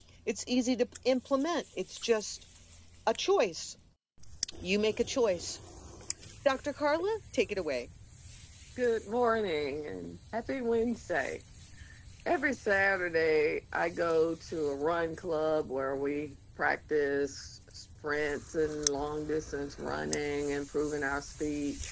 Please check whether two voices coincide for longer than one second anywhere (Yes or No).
No